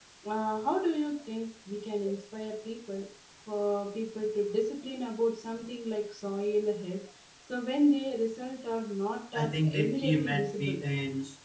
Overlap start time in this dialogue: 9.3 s

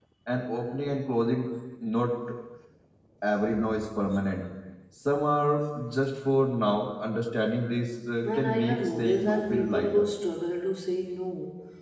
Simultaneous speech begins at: 8.2 s

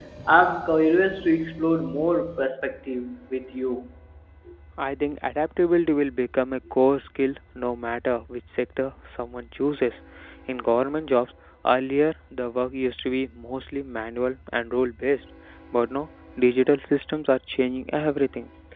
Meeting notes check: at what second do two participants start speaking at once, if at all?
none

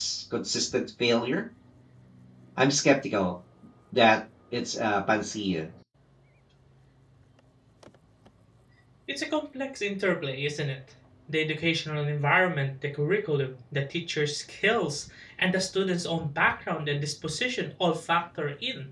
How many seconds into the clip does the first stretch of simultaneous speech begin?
none

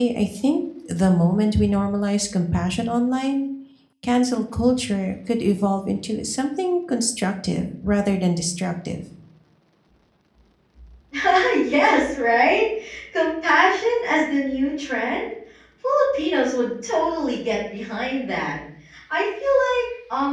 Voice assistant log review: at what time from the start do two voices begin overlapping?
none

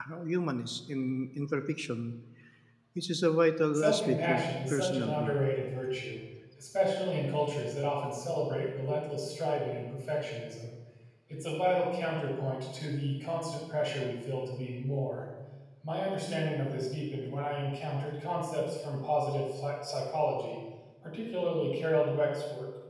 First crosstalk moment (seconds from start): 3.7 s

